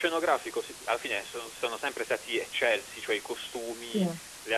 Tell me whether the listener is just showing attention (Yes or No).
Yes